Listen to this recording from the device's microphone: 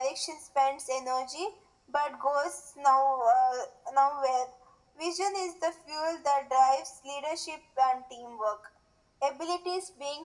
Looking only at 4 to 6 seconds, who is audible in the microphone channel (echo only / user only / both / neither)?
echo only